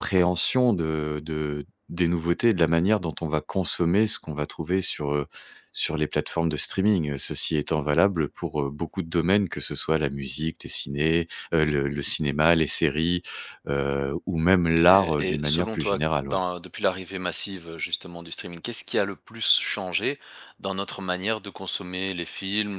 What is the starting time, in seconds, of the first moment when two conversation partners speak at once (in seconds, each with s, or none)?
14.7 s